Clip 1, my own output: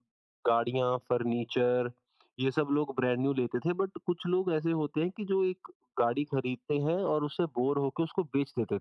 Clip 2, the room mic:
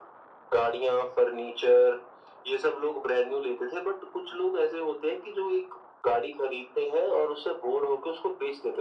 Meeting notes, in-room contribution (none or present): none